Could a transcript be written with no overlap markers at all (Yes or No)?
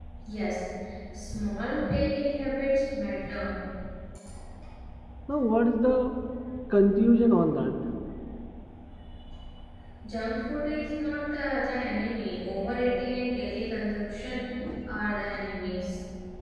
Yes